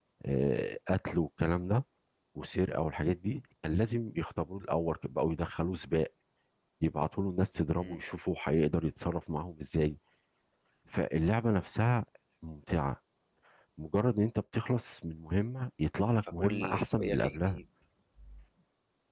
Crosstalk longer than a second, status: present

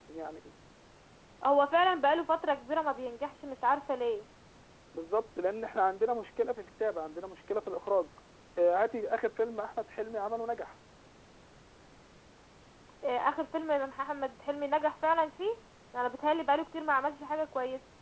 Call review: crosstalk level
none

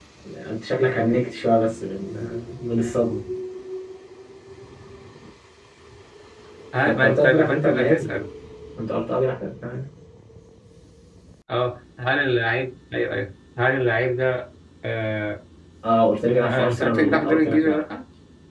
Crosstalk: present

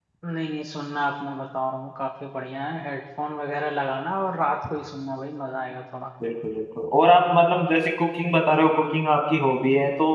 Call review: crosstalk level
none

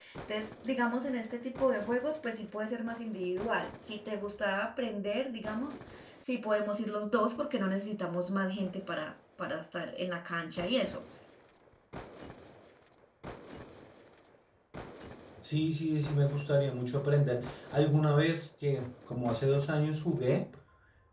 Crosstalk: none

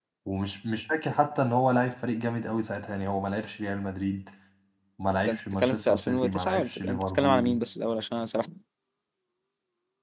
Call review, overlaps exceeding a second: present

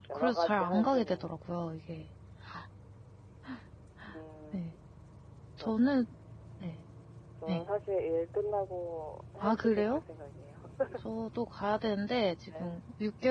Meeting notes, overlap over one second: present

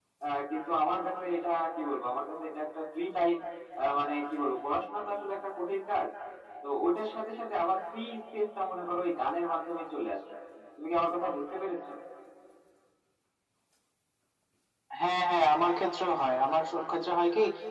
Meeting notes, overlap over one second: none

